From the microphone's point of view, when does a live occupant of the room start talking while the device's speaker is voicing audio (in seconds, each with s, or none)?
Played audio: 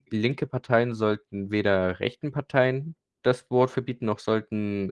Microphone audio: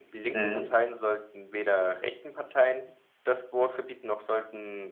0.3 s